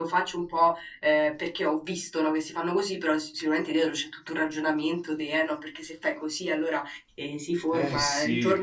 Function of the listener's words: listening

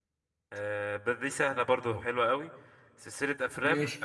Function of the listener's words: listening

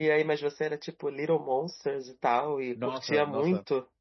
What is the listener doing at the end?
taking over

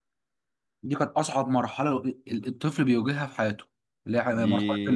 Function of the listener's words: taking over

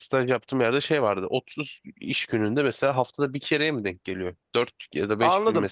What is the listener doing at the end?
taking over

